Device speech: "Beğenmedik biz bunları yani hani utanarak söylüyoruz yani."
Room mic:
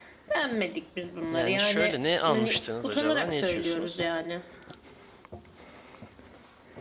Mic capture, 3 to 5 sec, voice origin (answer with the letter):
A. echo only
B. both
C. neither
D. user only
B